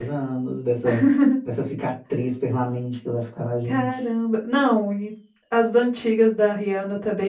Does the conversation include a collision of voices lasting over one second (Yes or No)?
No